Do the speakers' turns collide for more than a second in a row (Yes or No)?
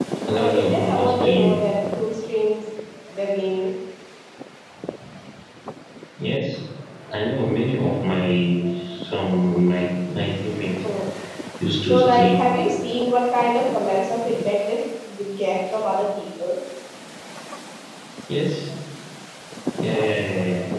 Yes